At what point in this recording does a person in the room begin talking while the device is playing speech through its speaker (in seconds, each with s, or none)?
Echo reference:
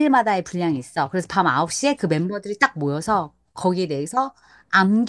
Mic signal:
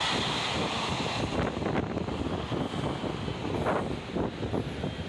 none